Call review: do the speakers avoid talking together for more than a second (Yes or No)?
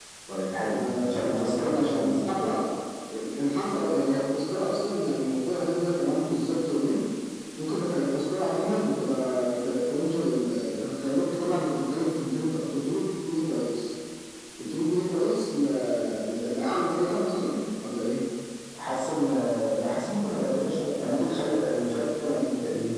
No